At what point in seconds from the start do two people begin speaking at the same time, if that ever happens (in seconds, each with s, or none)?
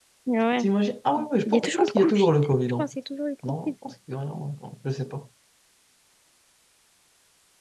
1.4 s